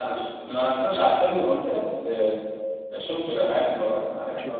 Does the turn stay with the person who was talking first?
No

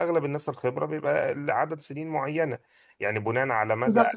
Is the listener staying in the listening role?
No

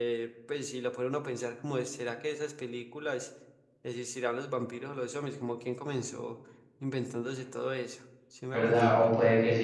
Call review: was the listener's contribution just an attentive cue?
No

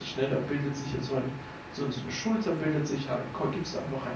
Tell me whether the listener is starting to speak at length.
No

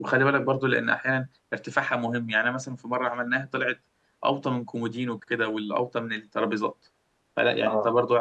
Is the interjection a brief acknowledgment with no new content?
Yes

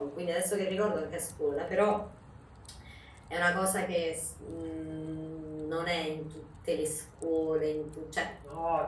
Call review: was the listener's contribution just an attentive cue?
No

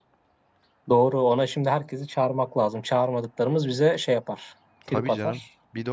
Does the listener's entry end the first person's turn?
Yes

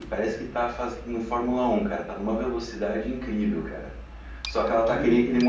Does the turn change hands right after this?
No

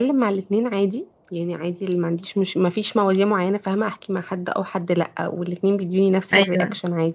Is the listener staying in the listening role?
Yes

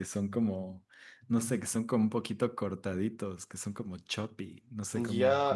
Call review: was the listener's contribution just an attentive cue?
No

